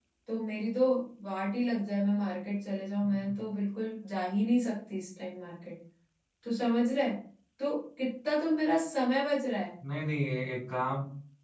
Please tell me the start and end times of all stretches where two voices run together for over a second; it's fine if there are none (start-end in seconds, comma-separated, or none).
none